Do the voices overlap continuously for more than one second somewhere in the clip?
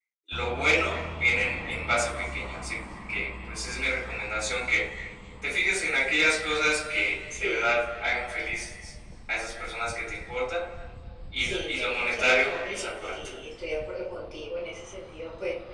Yes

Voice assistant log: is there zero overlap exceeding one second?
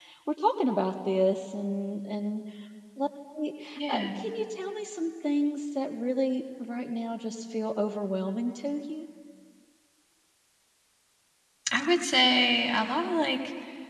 Yes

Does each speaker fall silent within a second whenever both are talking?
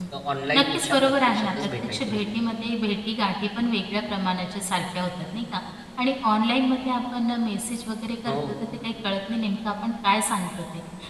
No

